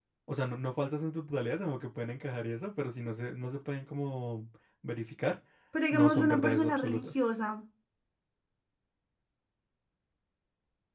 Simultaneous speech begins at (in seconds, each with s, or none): 5.9 s